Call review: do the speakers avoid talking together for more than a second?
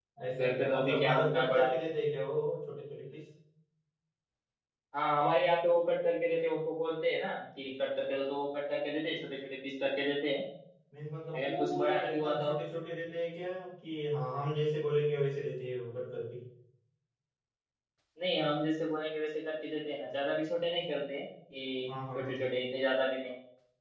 No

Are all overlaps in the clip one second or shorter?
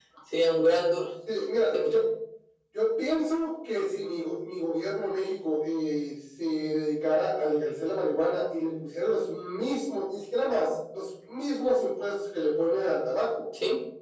Yes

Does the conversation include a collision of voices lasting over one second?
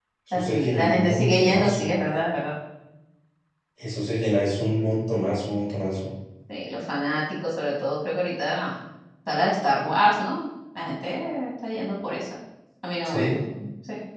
Yes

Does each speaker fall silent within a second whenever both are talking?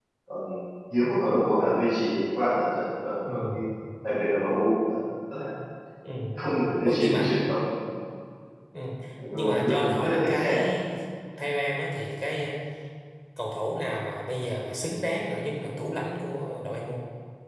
No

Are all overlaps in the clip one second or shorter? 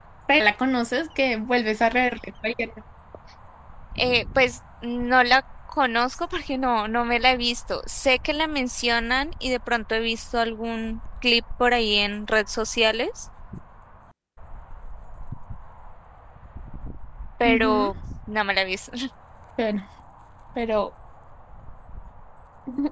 Yes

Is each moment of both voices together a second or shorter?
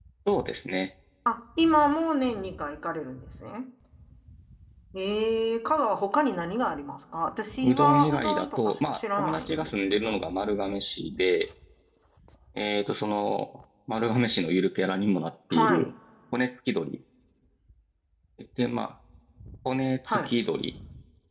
No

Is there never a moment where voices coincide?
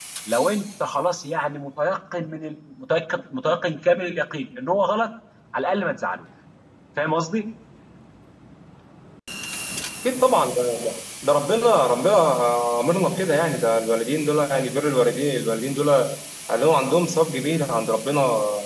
Yes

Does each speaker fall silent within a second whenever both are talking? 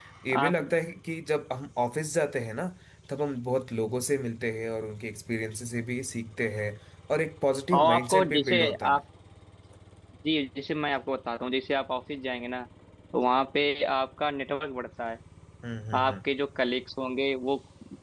No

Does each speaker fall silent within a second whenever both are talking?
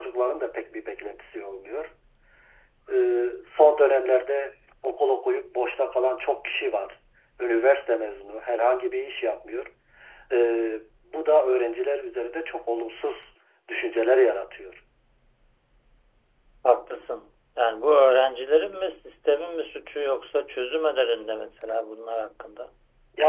Yes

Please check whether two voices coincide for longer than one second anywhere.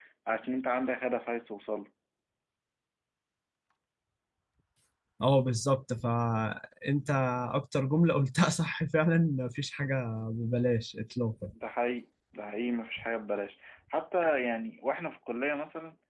No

